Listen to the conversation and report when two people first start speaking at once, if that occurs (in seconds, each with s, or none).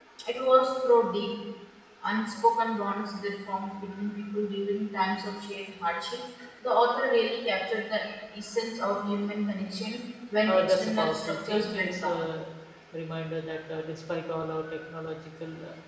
10.5 s